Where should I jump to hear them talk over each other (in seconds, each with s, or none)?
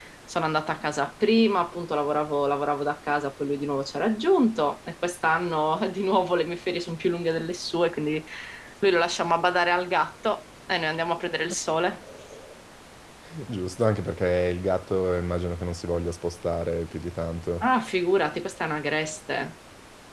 none